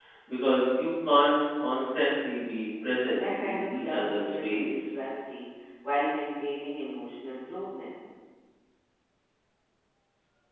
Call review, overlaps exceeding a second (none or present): present